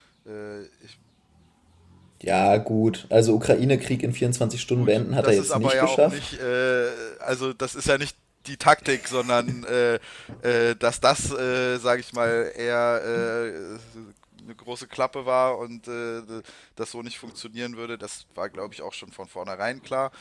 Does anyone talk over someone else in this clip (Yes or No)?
Yes